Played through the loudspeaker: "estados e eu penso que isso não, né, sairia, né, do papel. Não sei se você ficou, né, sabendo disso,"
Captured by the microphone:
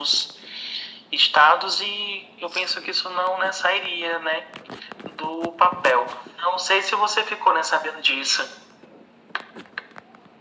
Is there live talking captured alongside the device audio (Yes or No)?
No